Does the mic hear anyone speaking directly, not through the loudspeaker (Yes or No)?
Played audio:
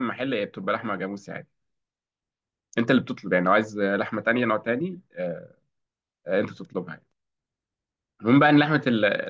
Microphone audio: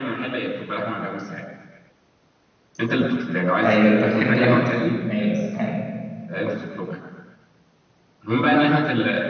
Yes